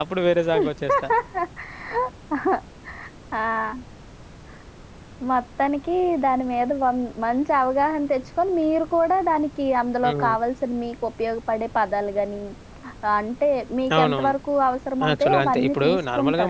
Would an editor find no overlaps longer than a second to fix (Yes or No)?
No